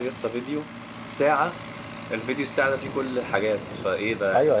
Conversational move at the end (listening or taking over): taking over